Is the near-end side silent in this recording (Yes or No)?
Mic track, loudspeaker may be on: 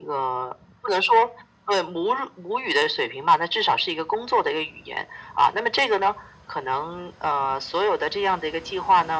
Yes